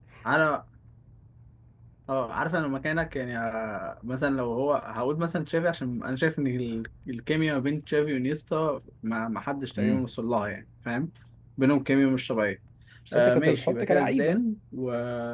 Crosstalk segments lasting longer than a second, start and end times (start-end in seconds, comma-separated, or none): 13.1-14.4